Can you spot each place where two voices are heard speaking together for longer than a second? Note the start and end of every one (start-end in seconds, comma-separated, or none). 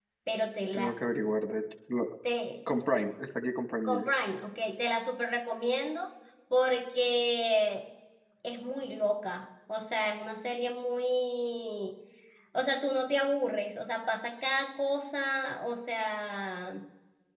none